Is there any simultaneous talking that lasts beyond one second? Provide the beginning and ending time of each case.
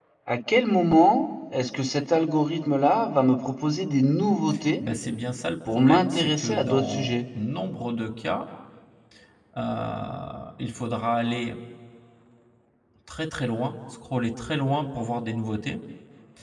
5.7-7.2

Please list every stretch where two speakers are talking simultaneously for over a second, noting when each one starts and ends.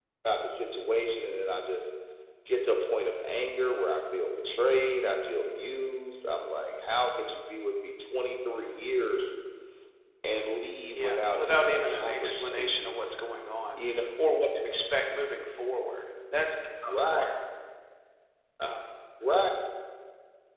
10.9-12.9

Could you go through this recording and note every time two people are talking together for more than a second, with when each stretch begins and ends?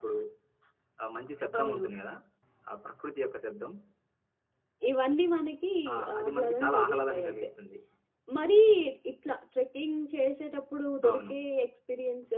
6.1-7.5

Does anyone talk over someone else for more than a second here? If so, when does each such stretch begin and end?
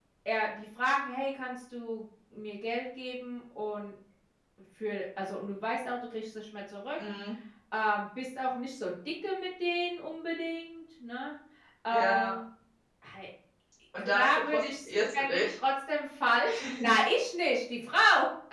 14.0-15.4

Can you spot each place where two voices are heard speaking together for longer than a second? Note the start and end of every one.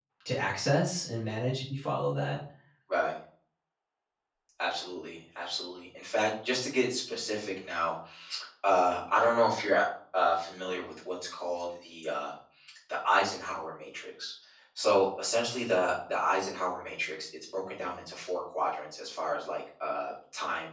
none

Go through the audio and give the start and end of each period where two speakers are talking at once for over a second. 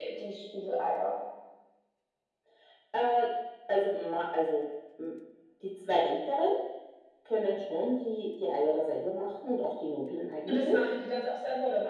none

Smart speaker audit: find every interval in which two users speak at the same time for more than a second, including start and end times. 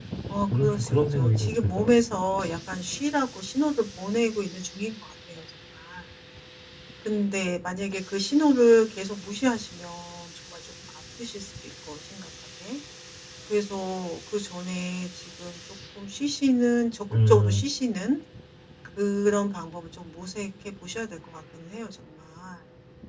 0.5-1.9

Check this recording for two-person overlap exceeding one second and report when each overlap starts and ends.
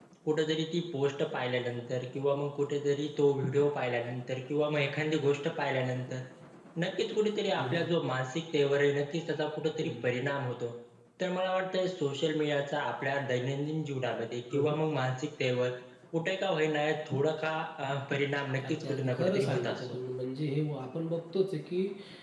18.7-20.0

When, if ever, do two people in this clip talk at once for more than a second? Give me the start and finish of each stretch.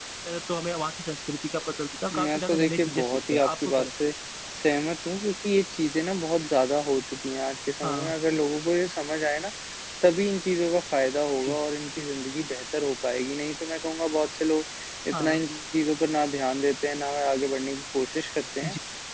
2.1-3.9

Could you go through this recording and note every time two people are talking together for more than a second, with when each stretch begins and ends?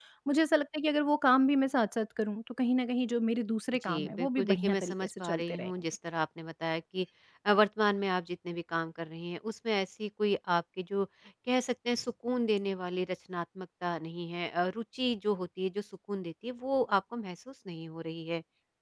3.7-5.7

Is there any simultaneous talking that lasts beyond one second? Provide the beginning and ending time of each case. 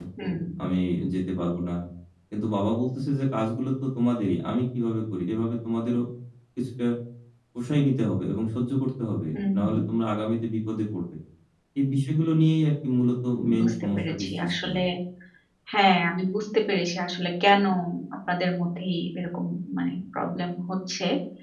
13.6-14.8

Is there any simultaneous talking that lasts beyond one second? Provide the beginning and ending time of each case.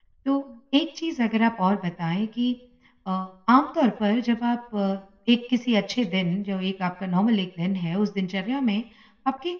none

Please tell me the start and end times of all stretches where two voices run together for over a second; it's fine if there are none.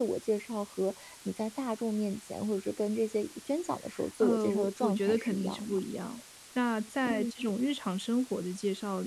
4.2-5.8

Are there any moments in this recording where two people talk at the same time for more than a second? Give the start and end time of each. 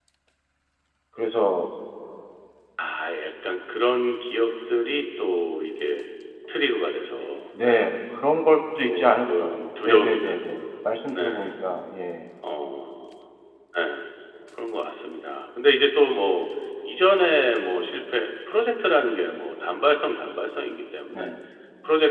8.8-10.3

